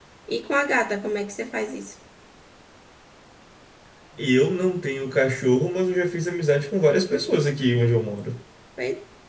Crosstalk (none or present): none